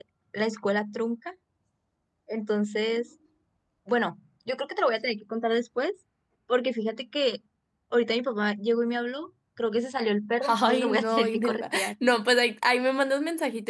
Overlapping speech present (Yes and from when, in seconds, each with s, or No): Yes, from 10.4 s